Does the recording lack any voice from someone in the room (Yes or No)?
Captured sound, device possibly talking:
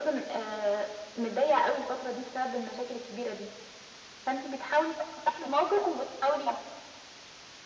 Yes